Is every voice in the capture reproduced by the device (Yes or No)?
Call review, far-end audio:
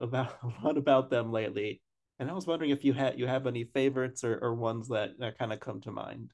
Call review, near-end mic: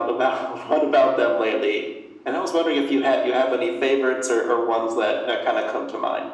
Yes